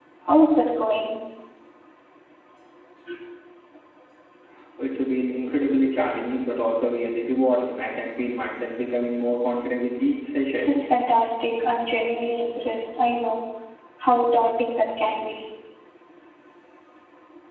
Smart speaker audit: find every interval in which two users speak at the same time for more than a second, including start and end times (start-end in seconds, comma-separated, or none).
none